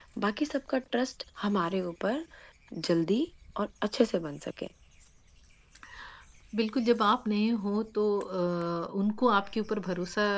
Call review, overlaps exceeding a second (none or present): none